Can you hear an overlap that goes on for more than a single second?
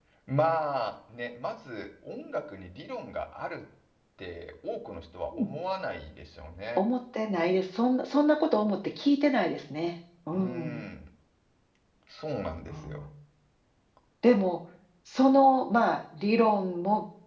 No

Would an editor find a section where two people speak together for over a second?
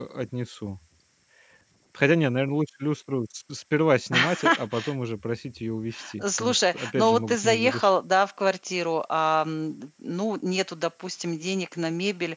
Yes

